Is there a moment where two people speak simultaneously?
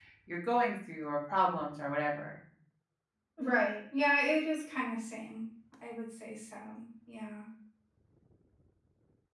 No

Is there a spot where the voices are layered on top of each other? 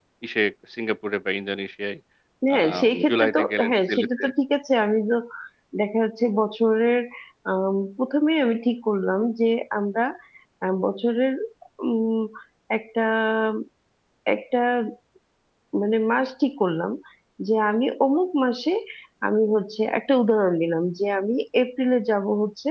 Yes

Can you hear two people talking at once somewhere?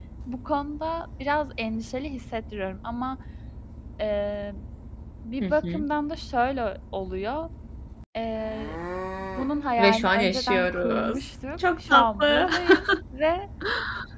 Yes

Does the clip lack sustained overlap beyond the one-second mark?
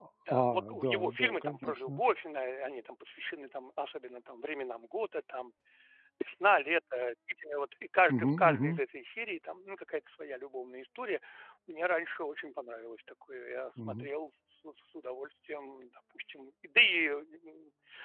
No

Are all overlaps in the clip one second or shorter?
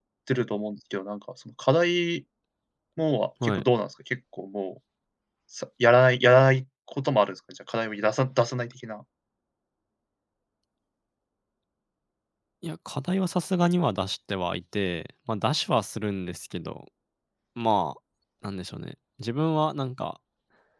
Yes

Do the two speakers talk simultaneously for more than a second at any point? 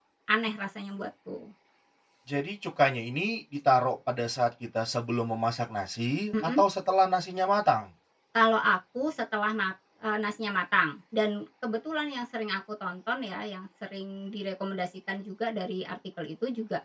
No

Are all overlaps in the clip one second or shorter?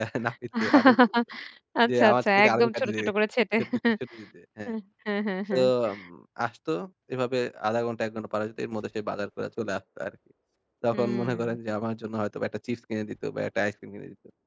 No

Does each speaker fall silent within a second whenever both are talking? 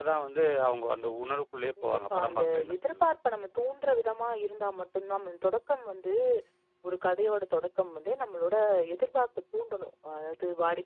No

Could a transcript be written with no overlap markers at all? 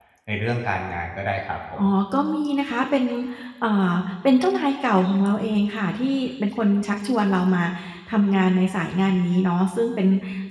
Yes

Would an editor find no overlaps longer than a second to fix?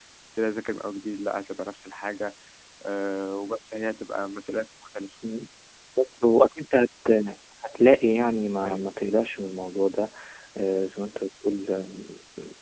Yes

